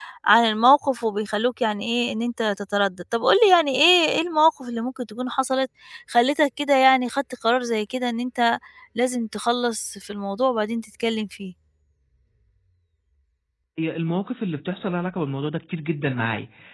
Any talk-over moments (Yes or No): No